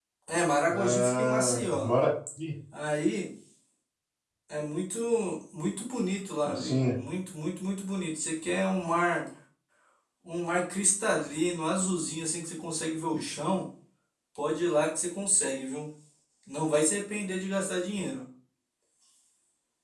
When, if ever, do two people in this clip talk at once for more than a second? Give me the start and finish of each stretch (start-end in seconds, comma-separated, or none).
0.7-1.9